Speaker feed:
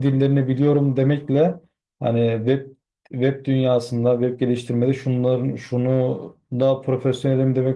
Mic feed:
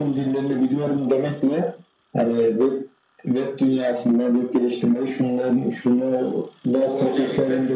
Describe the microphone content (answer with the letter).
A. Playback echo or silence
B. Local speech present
B